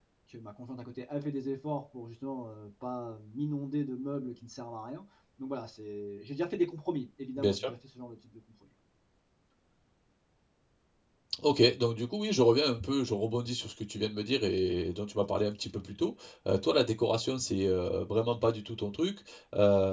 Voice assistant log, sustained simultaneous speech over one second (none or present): none